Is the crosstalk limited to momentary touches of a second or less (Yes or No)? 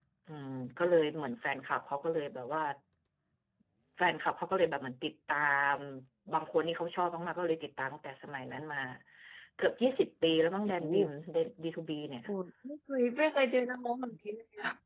Yes